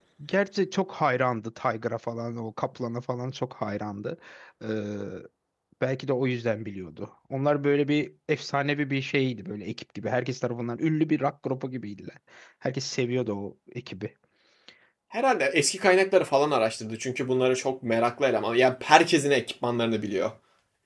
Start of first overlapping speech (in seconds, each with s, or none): none